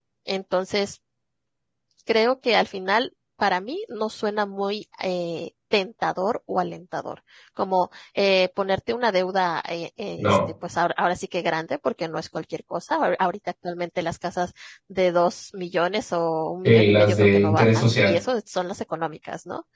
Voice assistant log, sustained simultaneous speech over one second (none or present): present